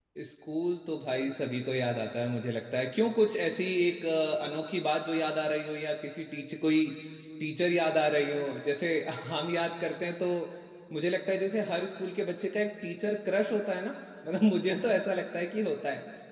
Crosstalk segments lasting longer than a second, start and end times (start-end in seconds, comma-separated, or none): none